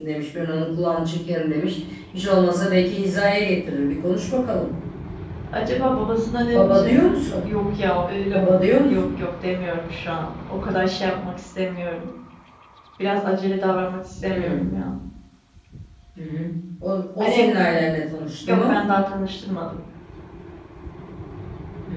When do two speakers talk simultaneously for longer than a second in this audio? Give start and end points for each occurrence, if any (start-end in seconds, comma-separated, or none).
none